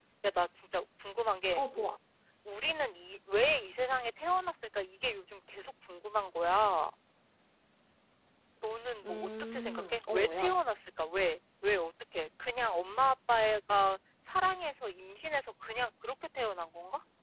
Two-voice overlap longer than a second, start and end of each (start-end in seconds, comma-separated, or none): 9.0-10.5